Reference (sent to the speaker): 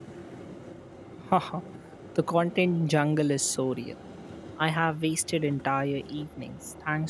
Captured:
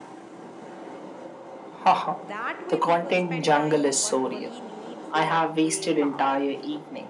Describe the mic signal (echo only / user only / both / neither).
both